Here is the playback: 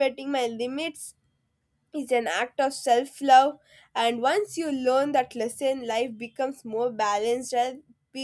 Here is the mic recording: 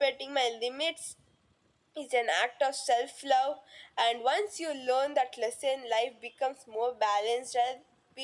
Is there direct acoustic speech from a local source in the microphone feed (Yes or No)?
No